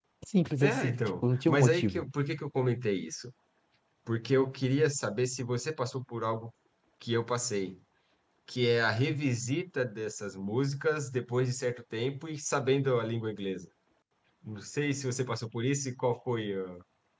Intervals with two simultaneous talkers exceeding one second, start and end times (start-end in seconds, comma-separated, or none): 0.6-2.0